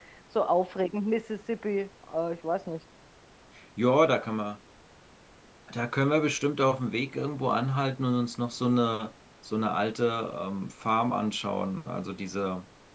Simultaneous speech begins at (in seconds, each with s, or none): none